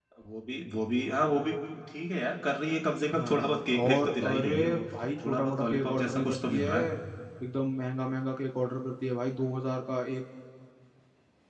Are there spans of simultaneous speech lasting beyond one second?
Yes, from 3.1 s

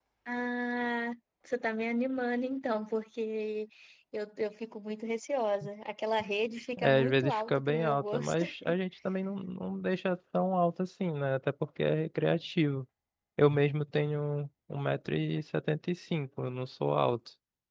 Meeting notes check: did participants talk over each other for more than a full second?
Yes, from 6.8 s

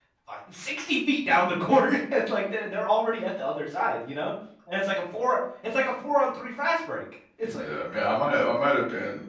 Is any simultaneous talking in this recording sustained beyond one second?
No

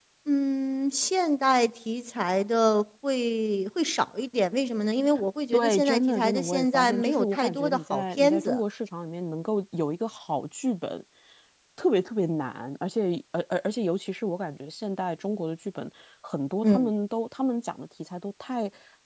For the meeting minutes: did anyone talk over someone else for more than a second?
Yes, from 5.5 s

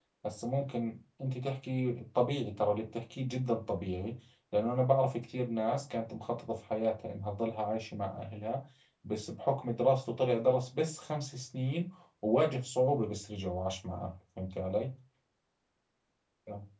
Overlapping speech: No

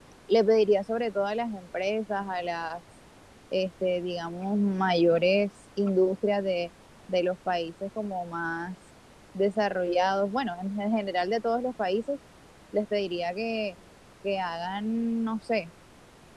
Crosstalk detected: No

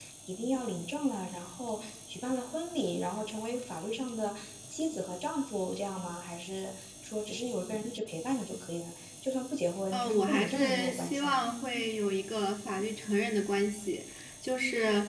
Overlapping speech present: Yes, from 9.9 s

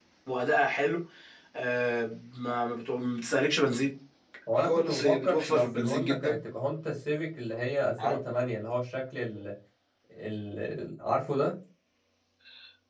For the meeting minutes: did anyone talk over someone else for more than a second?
Yes, from 4.6 s

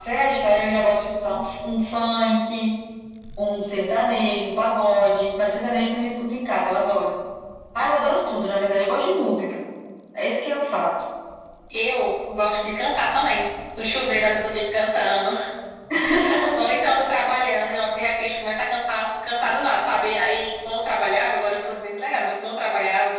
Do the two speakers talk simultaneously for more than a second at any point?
No

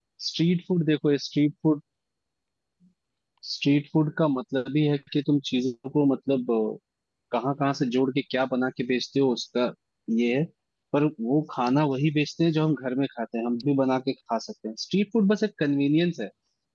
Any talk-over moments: No

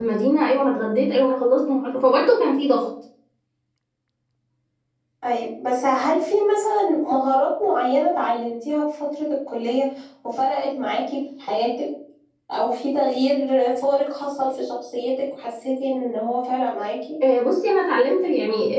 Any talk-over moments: No

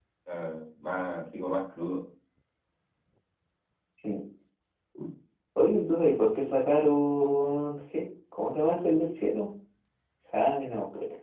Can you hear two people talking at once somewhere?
No

